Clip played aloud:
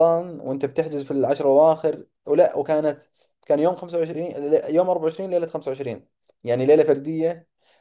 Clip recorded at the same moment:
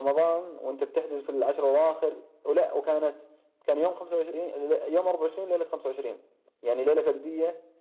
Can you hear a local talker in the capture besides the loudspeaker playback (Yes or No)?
No